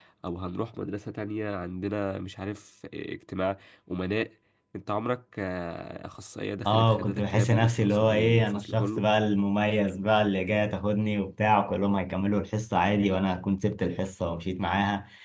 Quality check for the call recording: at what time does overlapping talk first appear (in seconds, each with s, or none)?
6.7 s